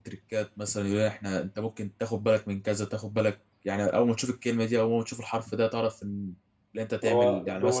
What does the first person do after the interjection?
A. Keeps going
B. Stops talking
B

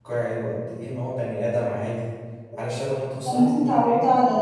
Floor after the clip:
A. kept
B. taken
B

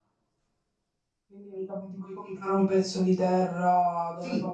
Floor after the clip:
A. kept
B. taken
B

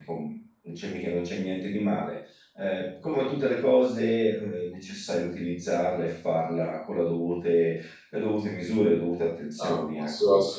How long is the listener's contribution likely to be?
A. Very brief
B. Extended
B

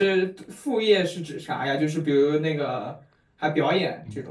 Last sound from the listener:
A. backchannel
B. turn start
B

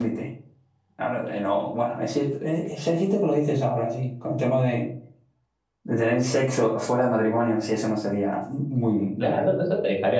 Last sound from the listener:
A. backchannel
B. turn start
B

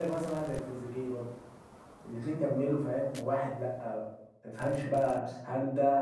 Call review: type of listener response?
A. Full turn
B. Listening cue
B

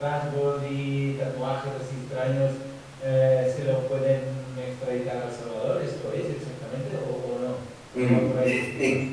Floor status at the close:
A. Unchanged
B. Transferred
B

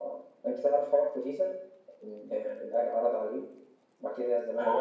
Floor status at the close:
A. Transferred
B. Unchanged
A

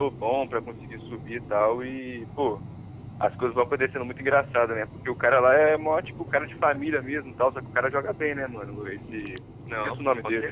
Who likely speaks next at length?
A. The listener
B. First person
A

